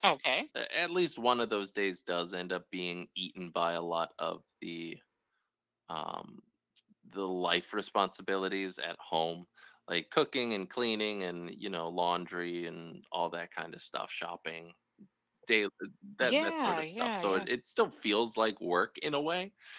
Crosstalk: present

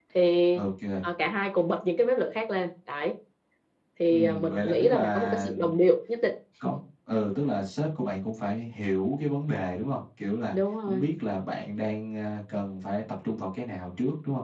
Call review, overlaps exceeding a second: present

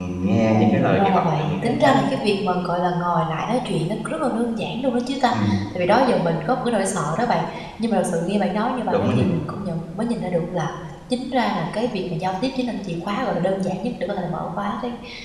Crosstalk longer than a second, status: present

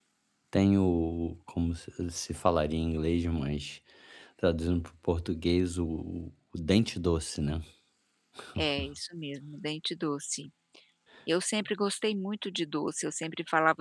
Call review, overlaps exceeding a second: none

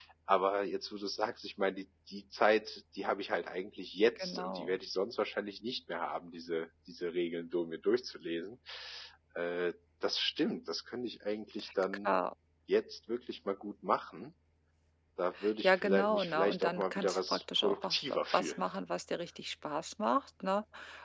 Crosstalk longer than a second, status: present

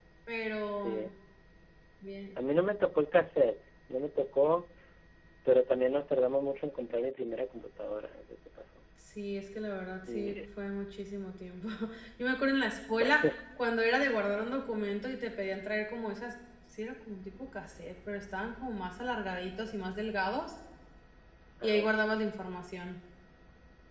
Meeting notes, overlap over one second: none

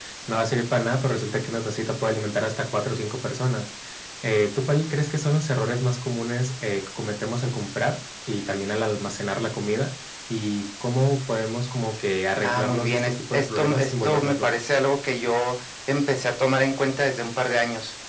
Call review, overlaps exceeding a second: present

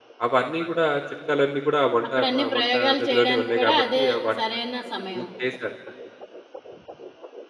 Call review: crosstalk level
present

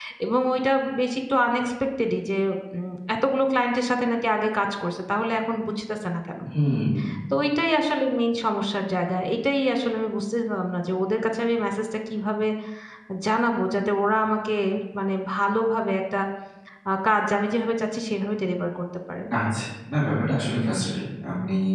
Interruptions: none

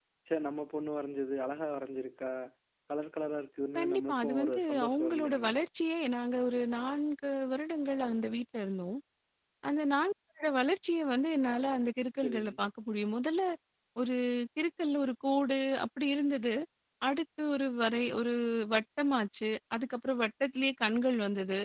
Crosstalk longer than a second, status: present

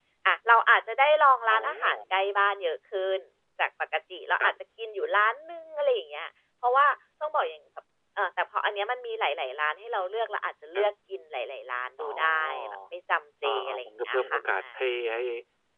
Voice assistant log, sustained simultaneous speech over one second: present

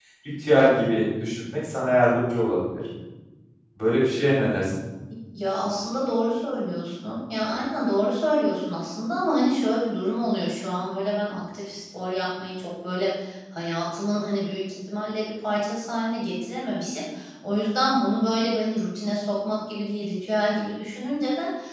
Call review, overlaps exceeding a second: none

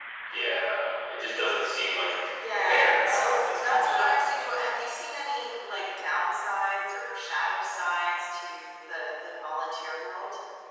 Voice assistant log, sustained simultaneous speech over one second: present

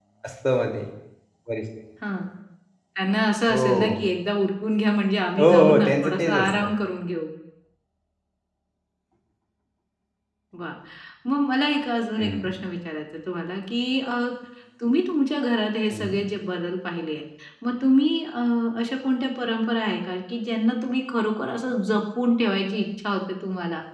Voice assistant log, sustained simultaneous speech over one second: present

